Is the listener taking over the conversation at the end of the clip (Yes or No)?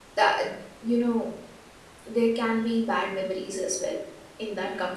No